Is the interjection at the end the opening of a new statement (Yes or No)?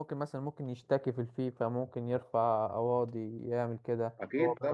Yes